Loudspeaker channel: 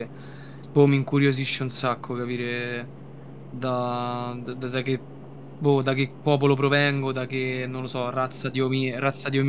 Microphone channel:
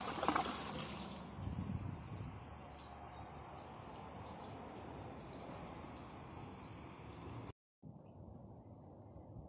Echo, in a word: none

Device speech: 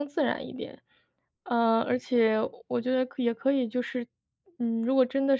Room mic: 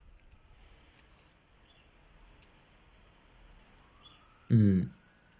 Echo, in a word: none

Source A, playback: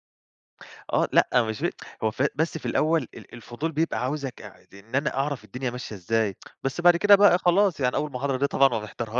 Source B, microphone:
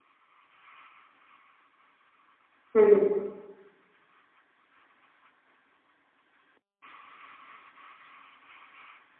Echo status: none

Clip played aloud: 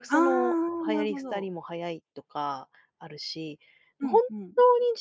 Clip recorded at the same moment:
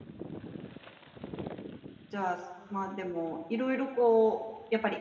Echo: none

